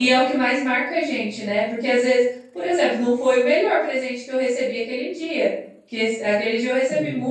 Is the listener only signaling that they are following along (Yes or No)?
Yes